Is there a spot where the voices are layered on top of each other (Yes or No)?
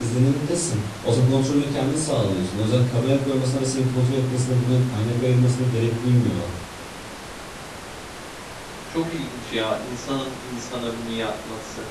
No